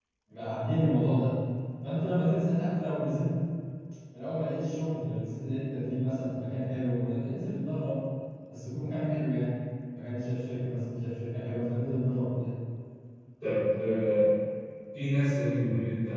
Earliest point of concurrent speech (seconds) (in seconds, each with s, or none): none